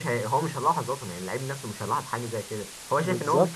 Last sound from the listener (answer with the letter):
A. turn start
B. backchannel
A